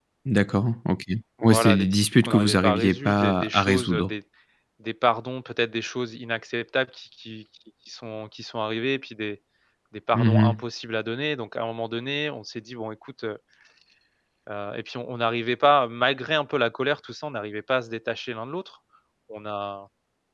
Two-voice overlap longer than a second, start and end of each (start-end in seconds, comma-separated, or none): 1.4-4.1